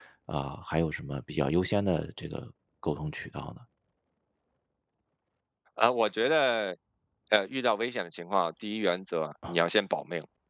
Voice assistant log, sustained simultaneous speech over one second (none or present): none